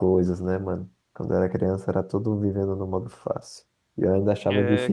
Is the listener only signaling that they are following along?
No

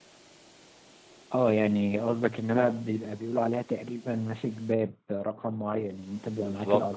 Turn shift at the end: No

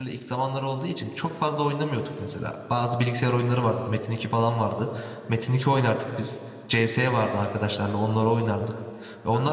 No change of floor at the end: Yes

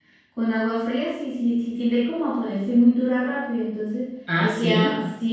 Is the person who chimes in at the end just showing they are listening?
Yes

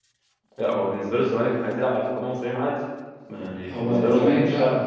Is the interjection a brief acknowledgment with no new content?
No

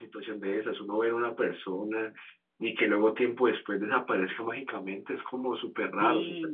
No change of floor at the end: No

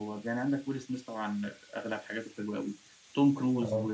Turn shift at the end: No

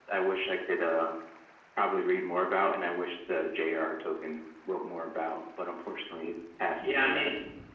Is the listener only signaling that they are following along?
No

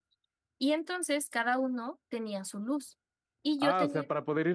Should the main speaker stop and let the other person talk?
Yes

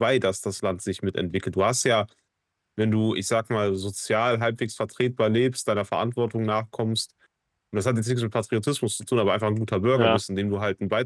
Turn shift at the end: No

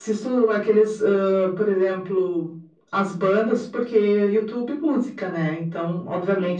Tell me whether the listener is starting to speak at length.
No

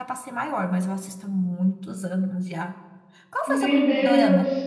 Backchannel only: No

